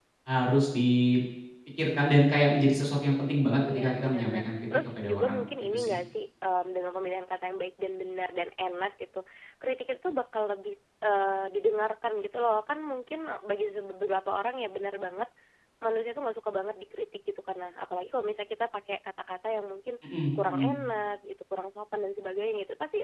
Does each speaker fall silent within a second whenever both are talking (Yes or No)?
No